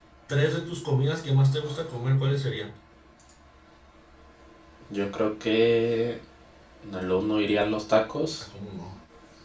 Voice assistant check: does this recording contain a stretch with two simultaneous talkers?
No

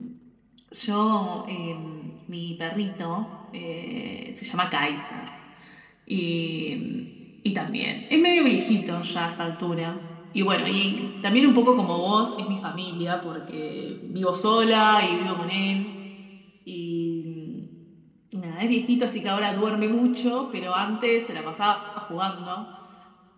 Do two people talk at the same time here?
No

